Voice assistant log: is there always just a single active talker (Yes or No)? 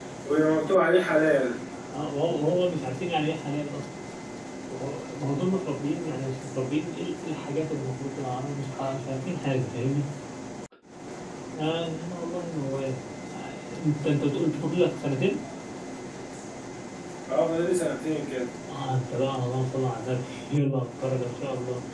Yes